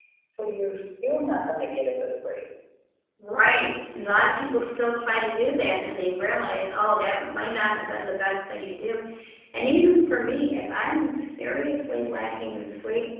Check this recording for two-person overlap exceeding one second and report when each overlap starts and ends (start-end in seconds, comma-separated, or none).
none